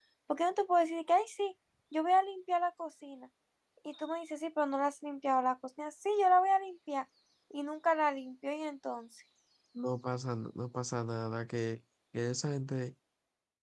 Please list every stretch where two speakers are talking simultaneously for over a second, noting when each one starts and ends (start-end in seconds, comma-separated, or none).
none